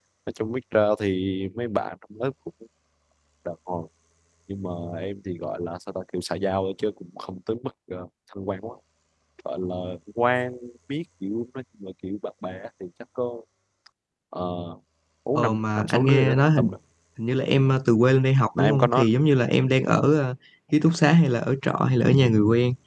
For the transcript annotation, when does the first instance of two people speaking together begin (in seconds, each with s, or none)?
15.3 s